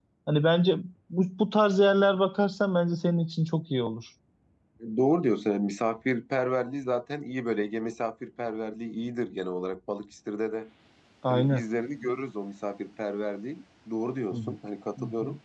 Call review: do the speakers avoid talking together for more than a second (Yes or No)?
Yes